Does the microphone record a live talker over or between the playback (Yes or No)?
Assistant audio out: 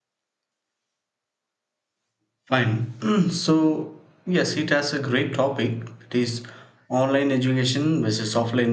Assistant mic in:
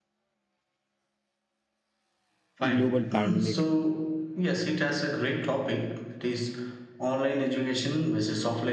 Yes